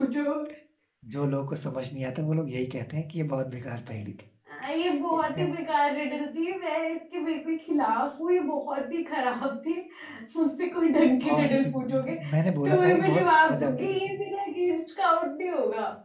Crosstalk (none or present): present